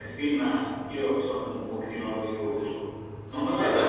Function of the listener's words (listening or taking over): listening